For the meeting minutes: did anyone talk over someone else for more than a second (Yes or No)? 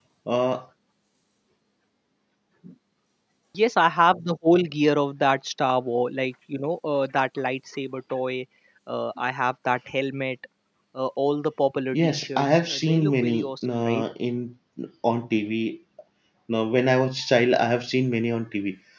Yes